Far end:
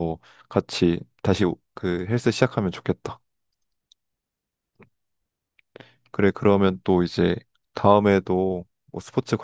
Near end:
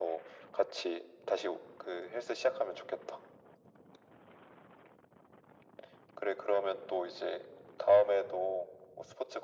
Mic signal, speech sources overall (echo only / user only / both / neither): echo only